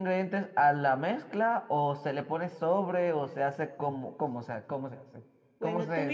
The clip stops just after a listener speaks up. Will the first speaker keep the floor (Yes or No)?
No